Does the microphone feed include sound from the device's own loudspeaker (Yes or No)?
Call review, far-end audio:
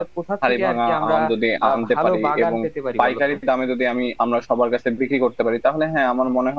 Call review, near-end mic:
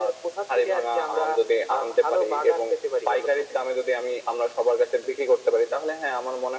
Yes